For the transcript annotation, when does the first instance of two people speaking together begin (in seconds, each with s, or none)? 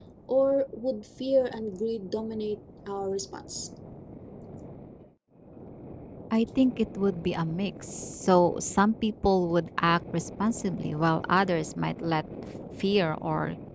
none